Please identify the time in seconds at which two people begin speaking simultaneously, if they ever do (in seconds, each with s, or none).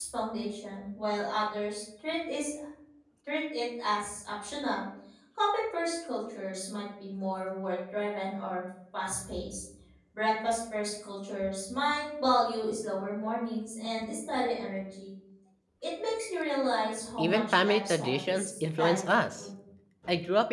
17.2 s